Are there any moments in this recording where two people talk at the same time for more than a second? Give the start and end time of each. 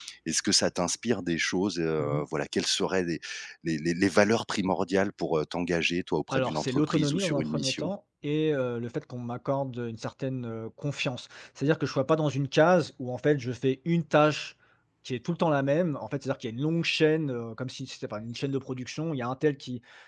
6.3-7.9

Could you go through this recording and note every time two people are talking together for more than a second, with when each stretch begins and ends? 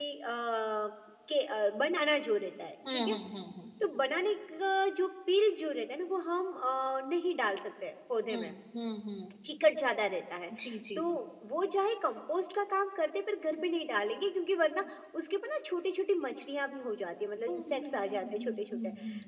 17.5-18.8

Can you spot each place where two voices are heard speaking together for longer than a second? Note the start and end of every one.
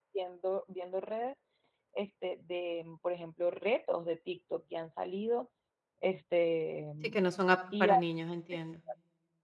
none

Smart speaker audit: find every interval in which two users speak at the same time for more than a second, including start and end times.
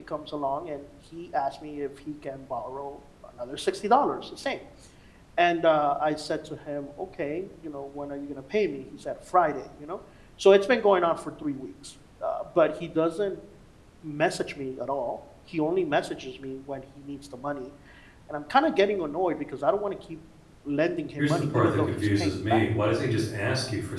21.2-22.6

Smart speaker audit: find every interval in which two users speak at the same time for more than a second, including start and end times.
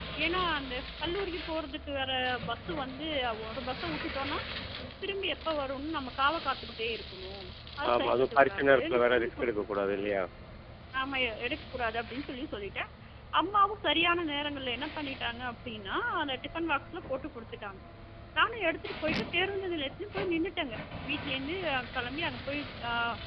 7.9-9.7

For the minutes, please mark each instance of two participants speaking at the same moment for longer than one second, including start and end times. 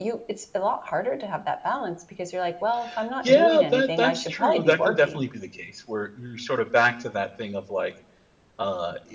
3.2-5.2

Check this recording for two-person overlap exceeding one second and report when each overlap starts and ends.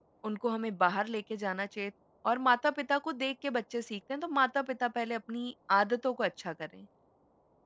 none

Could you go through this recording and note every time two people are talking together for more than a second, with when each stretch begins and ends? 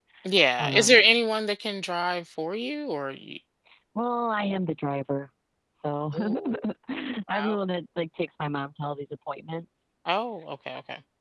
none

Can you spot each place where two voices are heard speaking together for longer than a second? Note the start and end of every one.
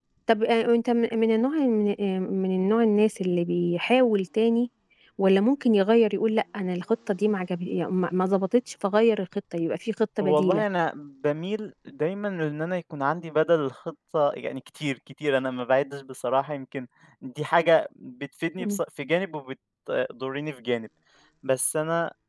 none

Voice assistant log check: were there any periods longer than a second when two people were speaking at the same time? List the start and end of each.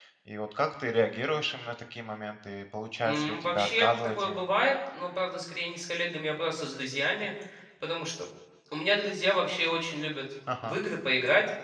3.0-4.4

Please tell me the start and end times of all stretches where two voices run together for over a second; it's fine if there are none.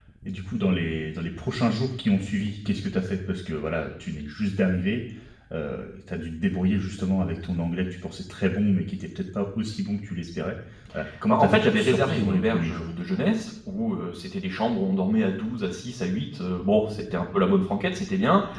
11.3-12.8

